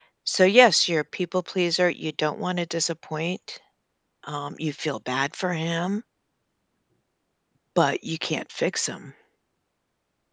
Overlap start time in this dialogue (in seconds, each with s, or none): none